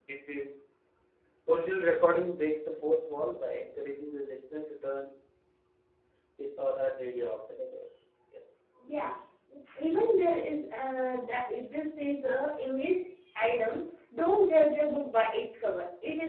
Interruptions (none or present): none